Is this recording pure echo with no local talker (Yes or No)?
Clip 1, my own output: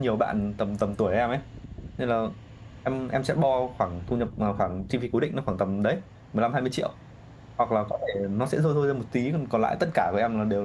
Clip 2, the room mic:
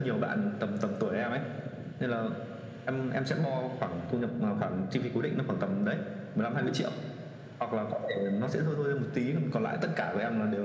No